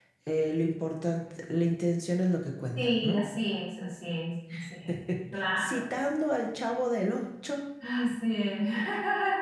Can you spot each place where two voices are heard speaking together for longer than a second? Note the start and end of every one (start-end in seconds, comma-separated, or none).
none